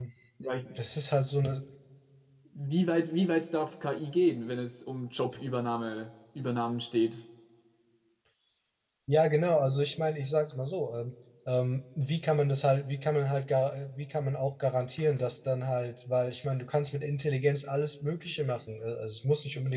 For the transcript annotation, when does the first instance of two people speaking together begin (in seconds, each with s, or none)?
none